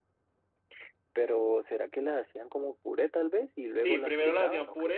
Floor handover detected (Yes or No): Yes